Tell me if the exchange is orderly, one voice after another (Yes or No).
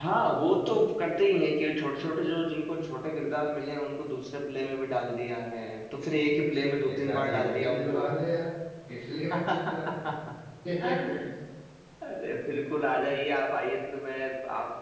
No